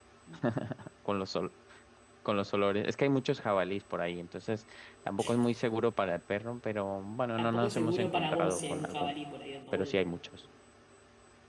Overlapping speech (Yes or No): Yes